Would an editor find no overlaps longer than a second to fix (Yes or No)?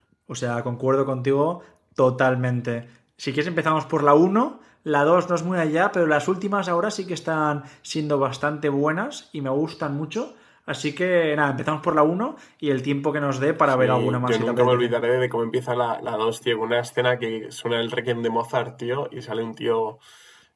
No